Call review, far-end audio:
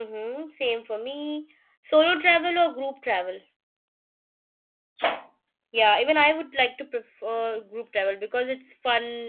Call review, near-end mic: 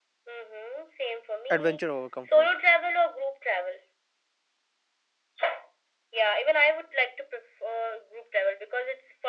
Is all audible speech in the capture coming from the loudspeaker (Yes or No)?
No